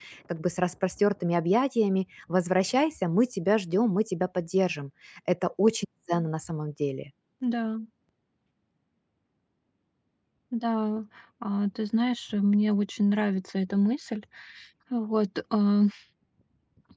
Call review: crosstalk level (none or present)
none